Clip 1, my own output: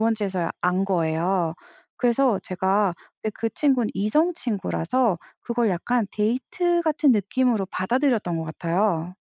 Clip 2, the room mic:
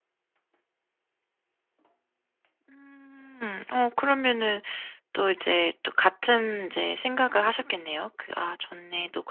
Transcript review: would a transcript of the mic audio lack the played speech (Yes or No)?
Yes